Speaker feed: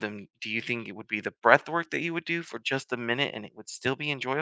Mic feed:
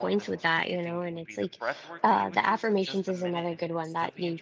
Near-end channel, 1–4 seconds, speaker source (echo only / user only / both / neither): both